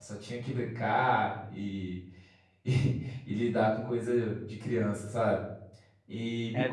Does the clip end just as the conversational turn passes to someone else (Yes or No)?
No